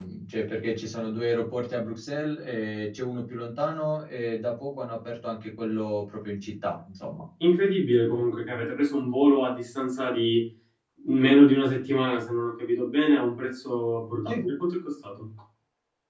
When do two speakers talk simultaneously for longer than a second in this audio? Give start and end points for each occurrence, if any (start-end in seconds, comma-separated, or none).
none